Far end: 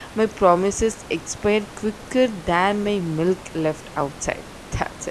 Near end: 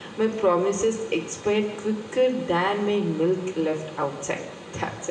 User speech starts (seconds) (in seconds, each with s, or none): none